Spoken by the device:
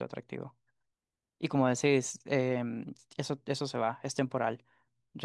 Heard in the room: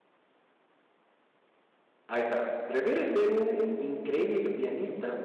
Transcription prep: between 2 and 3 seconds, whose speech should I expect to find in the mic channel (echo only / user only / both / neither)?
user only